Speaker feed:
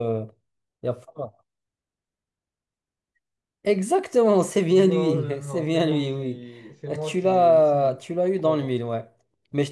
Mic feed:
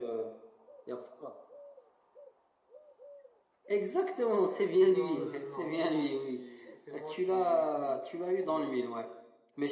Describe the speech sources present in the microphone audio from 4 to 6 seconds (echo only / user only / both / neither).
echo only